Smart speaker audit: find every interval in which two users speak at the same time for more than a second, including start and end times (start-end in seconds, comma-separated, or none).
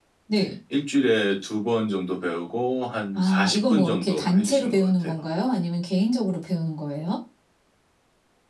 3.1-5.1